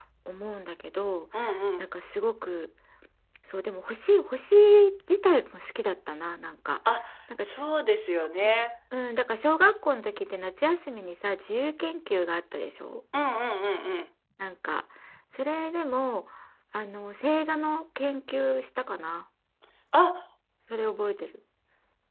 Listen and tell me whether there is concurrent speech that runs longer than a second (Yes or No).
No